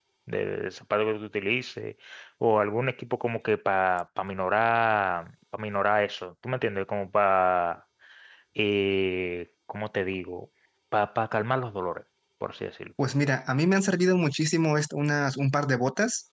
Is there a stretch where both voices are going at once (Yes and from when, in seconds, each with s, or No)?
No